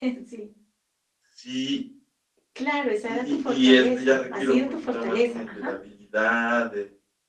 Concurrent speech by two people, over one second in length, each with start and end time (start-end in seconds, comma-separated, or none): 3.0-5.7